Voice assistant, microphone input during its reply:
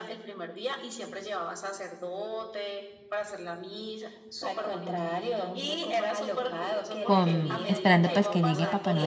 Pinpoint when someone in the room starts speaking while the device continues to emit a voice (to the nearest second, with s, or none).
7 s